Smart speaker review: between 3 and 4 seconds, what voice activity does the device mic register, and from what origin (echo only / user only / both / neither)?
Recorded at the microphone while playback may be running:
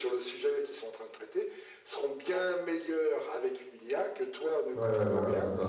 echo only